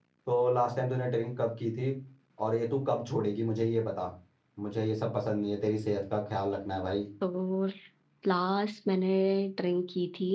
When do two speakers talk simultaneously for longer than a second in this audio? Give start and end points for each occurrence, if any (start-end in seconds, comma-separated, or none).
none